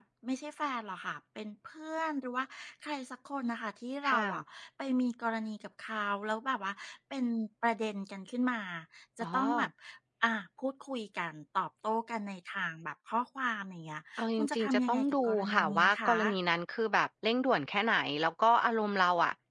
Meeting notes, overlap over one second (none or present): present